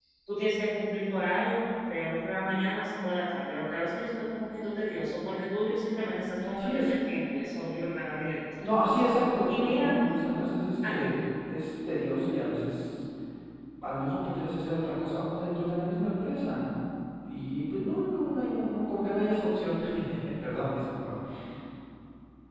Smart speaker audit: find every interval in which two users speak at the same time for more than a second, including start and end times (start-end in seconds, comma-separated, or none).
none